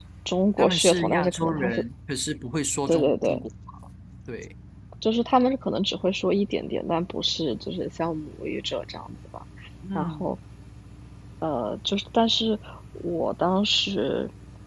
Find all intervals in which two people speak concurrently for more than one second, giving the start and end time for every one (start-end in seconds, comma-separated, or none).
0.6-1.8